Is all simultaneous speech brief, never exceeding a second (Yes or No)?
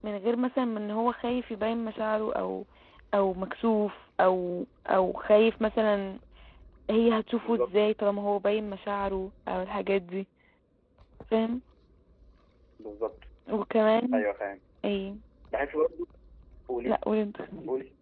Yes